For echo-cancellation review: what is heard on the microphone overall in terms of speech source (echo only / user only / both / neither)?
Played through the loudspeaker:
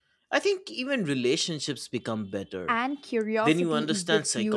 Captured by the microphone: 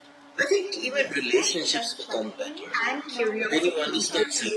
both